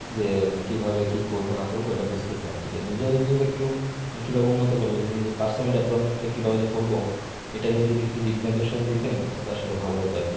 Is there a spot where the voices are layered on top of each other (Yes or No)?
No